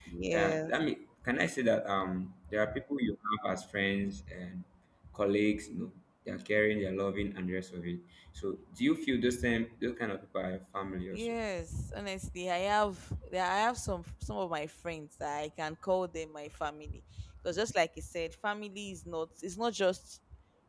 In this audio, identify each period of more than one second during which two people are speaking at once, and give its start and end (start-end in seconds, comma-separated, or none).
none